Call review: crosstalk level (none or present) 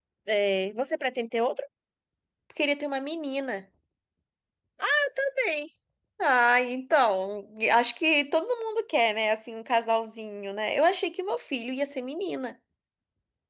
none